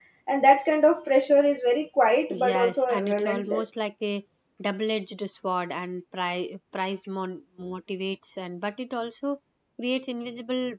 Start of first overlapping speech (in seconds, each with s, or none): 2.3 s